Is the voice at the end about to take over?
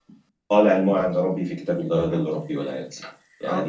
No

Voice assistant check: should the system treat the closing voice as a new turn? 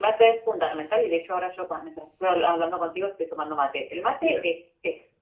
No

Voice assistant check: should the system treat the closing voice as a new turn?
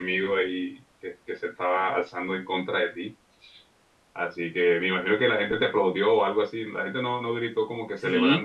Yes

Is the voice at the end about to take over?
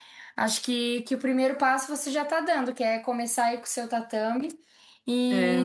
No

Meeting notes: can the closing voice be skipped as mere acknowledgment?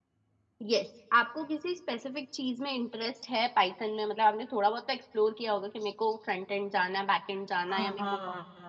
No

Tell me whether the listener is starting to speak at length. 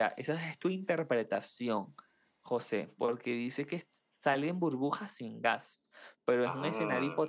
No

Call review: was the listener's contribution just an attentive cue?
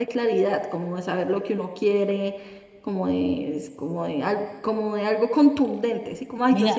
Yes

